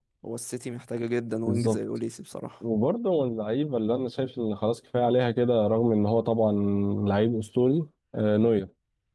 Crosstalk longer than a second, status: none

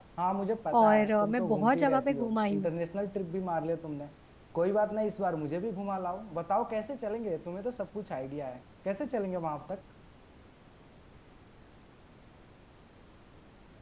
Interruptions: present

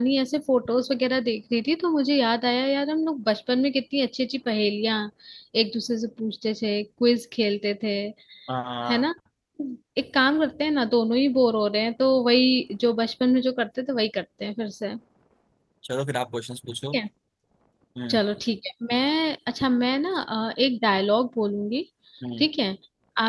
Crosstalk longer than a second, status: none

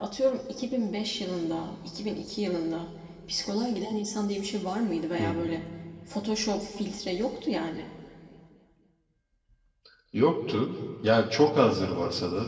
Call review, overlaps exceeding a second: none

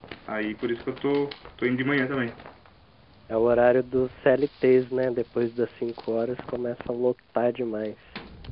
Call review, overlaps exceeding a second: none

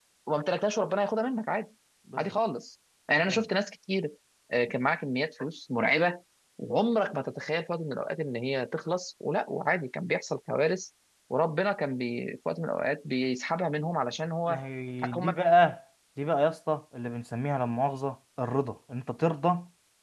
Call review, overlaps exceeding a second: none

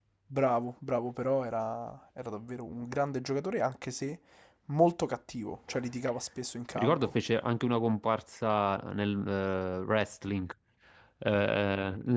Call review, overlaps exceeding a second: none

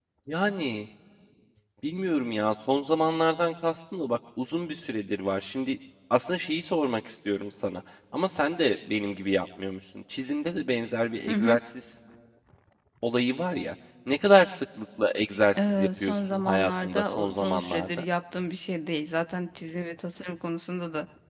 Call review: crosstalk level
present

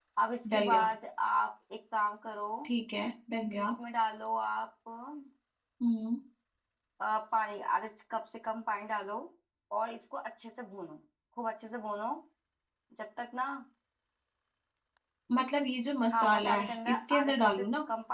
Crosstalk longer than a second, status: present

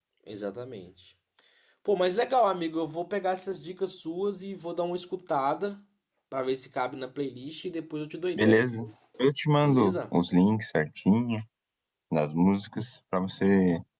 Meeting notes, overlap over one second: none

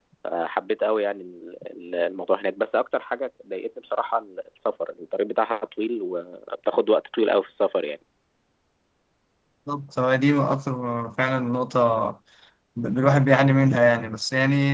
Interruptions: none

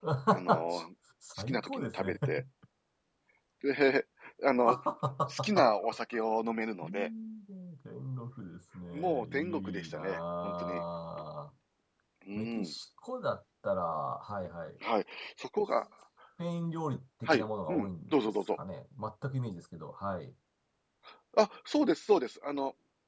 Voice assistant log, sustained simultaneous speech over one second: present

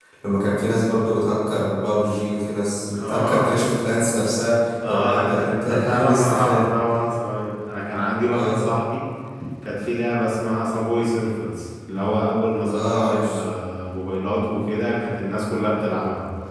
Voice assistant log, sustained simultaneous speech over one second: present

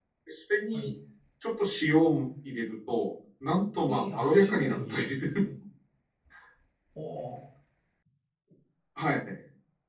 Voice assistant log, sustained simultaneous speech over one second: present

